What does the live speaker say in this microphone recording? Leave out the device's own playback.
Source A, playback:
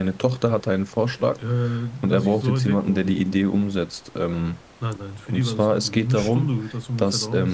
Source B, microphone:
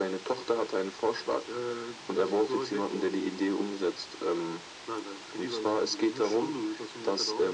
none

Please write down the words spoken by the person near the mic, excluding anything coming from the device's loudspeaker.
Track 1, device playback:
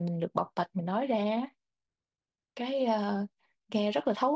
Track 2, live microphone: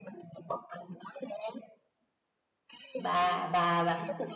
bà bà bà

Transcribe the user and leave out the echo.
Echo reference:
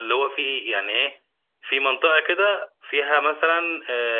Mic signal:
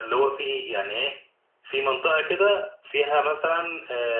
none

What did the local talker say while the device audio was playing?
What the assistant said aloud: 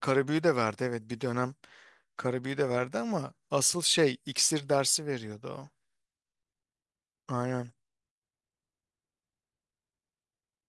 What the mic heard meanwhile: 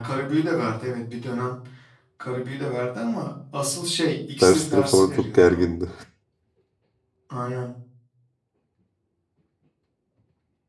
dersleri falan çok gergindi.

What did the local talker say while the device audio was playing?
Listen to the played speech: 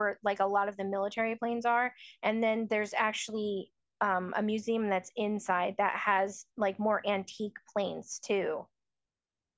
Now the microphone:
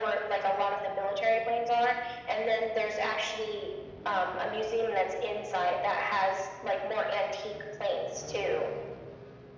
none

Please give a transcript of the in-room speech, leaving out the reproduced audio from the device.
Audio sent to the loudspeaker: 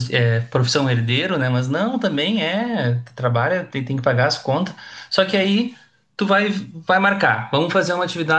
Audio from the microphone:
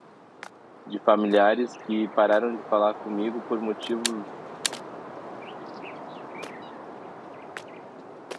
de familiares que pararam de falar comigo por motivos

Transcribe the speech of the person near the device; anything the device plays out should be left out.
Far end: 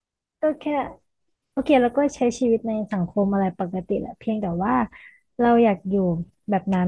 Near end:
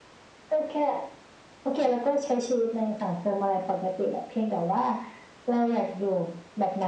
none

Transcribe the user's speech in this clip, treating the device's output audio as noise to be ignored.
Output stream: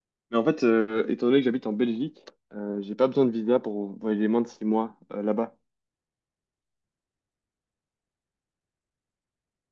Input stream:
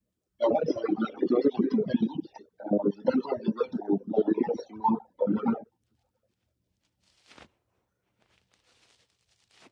none

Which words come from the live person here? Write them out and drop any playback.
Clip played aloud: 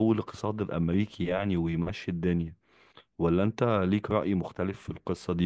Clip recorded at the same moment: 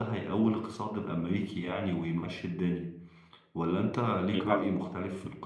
بيهاجموا

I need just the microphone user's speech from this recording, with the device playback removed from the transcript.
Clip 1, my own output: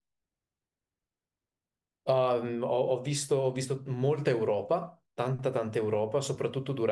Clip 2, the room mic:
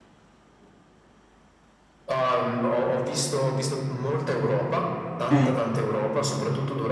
Eh.

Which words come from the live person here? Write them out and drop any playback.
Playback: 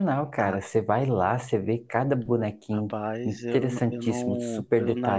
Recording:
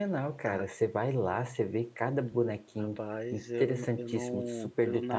none

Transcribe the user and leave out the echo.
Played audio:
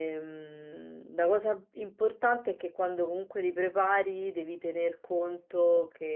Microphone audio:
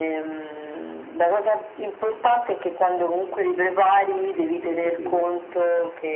ho capito.

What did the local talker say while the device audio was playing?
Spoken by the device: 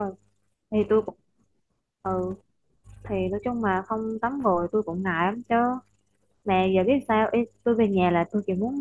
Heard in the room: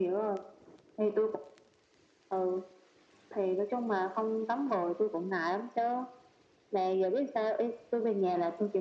none

